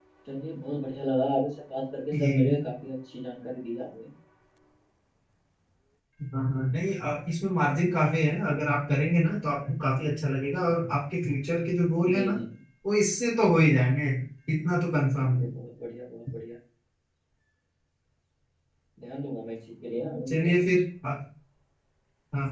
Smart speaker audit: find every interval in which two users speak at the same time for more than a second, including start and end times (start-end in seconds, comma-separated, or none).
none